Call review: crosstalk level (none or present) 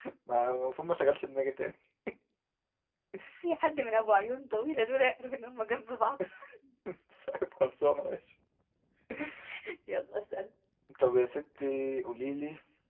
none